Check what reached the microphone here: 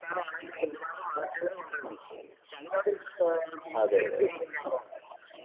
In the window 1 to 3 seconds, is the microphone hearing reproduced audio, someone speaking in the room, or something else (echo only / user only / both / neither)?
echo only